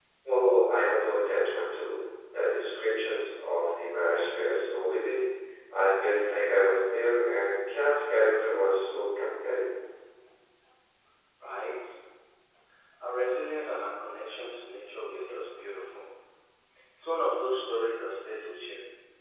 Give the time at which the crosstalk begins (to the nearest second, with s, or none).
none